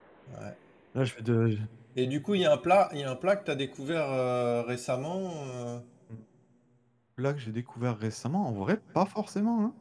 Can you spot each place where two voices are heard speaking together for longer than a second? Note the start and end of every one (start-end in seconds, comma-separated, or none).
none